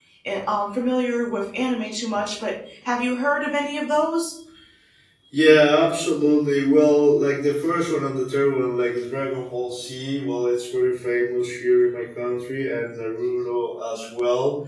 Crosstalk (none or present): none